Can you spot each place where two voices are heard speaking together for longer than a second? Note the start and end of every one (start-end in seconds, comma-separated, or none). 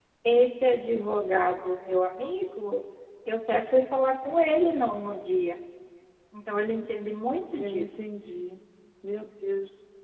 none